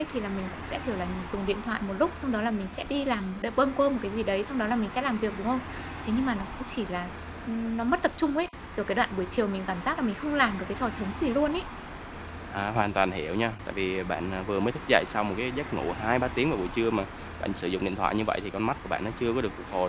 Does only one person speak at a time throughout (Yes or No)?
Yes